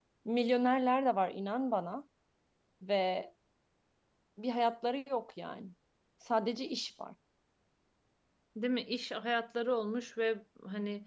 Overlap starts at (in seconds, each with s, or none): none